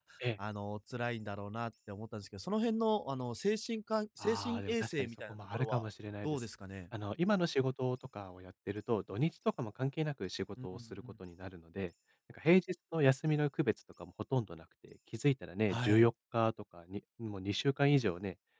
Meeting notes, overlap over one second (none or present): present